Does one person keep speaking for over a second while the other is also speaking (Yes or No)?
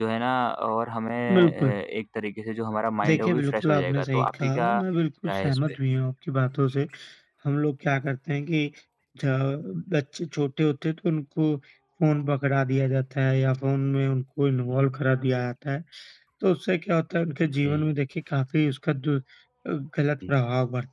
Yes